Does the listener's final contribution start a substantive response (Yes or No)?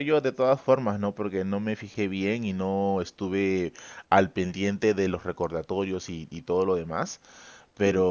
No